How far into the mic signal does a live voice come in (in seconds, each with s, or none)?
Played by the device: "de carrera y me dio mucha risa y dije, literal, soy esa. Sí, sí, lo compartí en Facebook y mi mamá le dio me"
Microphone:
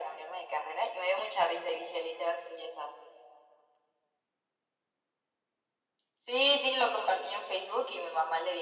none